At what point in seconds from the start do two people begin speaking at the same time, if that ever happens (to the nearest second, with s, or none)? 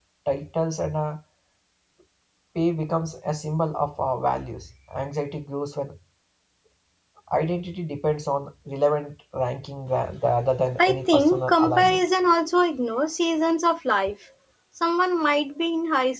11 s